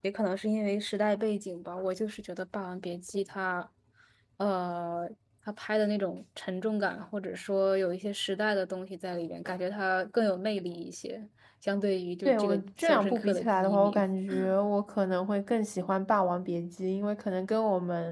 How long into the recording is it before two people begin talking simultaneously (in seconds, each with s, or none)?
12.2 s